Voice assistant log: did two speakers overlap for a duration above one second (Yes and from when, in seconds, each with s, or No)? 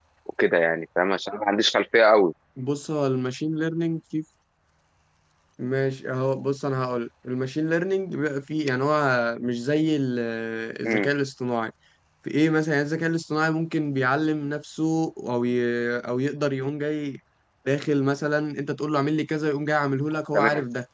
No